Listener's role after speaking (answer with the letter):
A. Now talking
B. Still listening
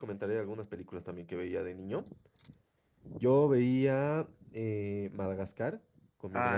A